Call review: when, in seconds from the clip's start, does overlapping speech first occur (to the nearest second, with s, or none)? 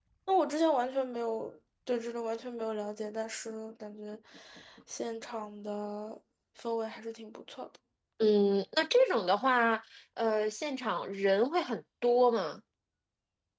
none